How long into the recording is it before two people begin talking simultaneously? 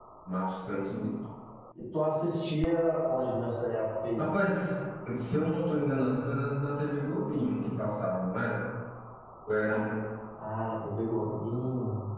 none

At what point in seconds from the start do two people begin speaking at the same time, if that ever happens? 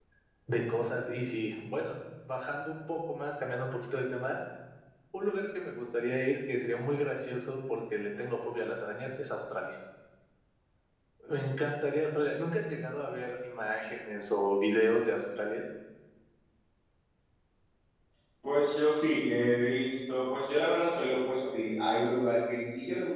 none

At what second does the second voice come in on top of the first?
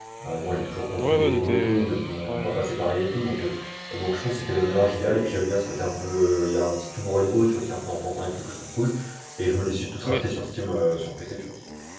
1 s

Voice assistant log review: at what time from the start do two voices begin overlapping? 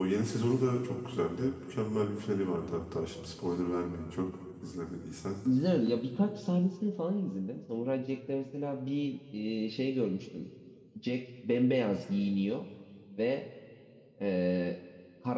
none

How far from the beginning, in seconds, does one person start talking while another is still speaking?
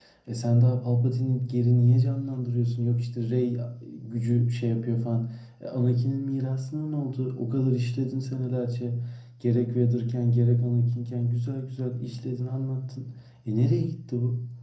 none

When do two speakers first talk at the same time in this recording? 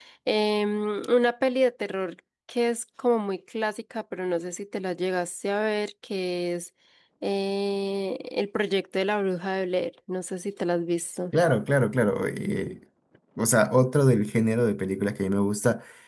none

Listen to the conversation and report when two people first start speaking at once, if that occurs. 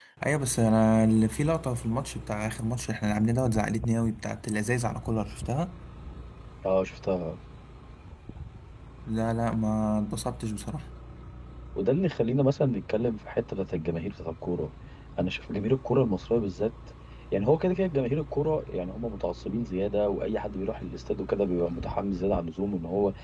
none

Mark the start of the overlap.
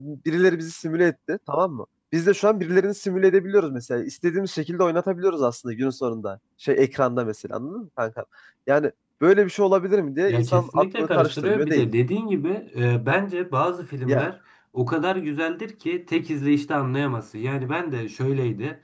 10 s

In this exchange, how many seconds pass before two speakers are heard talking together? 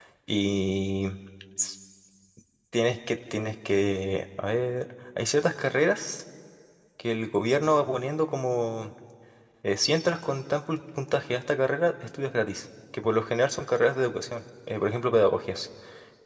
none

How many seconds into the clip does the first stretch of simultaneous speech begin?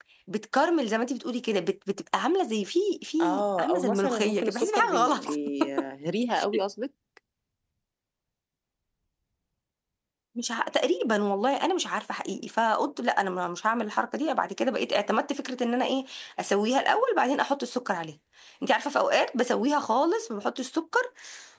3 s

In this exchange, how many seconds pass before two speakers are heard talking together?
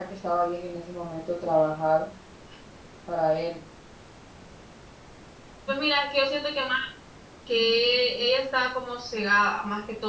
none

